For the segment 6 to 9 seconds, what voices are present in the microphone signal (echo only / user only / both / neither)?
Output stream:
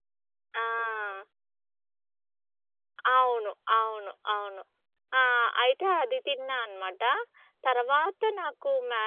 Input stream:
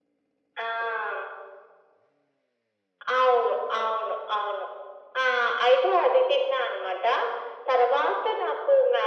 echo only